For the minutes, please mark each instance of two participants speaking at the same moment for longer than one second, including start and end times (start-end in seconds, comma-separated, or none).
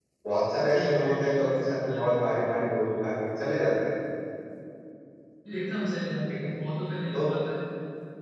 0.7-2.4